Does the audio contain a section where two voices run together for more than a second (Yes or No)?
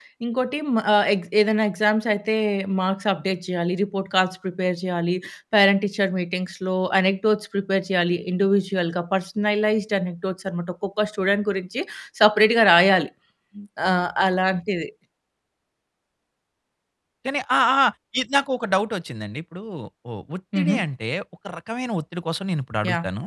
No